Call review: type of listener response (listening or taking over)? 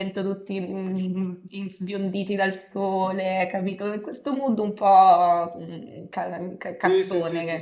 taking over